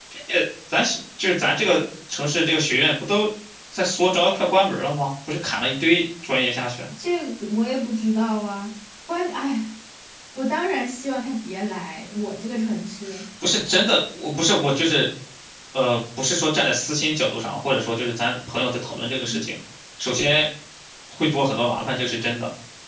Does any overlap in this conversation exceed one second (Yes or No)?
No